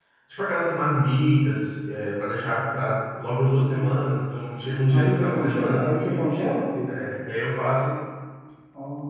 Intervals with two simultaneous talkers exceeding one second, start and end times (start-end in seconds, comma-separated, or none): 4.9-6.3